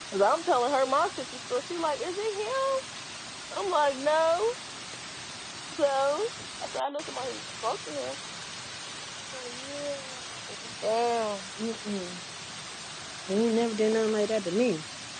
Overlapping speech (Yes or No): No